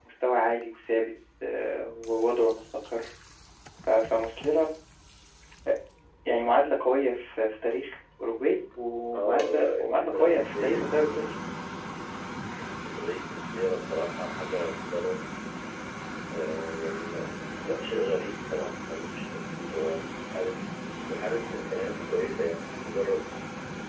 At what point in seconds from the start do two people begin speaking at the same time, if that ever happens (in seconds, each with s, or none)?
9.1 s